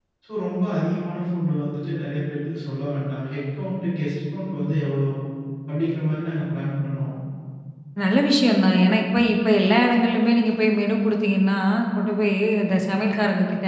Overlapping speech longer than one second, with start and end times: none

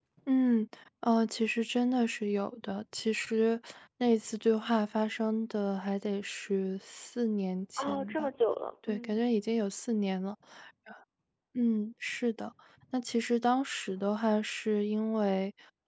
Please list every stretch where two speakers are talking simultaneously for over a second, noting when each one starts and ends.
none

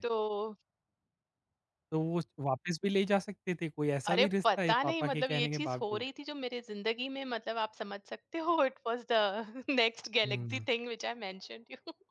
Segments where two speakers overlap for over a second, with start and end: 4.1-6.0

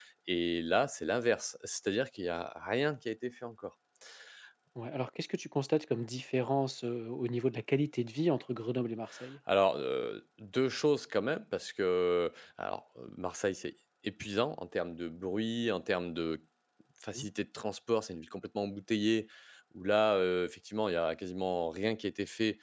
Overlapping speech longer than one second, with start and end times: none

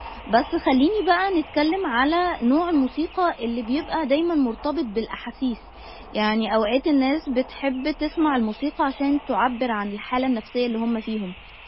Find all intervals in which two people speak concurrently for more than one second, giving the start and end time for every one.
none

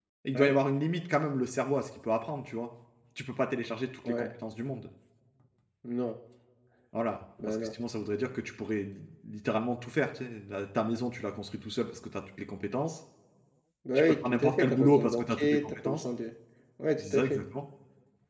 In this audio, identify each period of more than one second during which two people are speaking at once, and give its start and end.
14.0-16.0

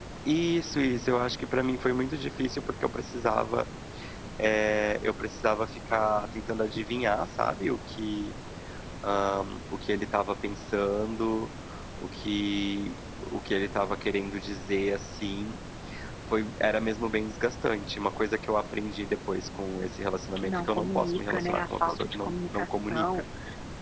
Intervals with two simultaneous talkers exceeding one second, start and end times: 20.4-23.2

